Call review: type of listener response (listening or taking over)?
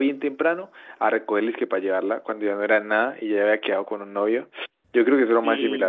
taking over